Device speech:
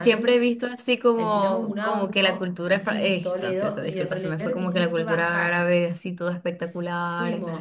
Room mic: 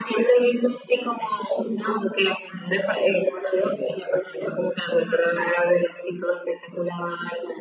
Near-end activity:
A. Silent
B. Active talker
A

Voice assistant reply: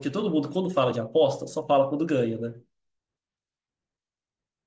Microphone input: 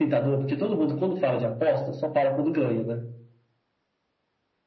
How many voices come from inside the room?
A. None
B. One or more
A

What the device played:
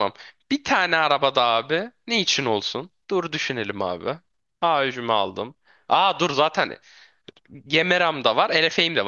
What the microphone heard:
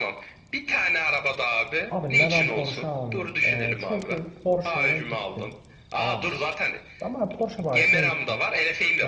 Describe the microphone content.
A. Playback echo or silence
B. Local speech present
B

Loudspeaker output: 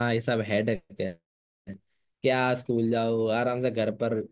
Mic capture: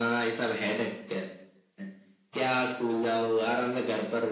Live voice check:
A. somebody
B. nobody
B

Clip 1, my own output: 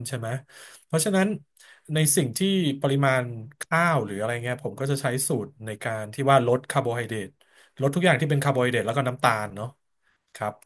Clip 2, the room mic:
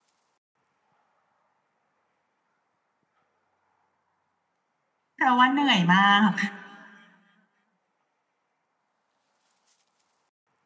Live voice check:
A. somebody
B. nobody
A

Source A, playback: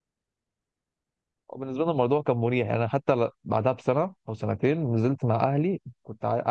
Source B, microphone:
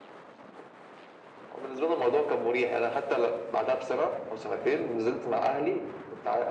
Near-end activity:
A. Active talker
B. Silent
B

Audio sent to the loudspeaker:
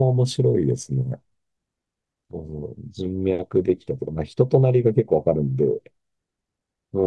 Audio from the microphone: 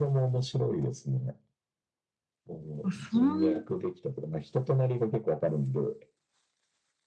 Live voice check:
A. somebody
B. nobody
A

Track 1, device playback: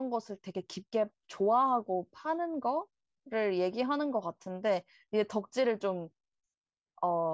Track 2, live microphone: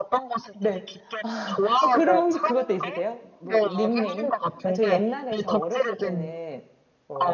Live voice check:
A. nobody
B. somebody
B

